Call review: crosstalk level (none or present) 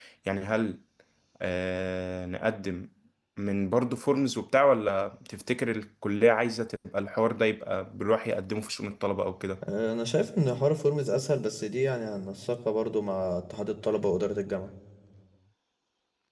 none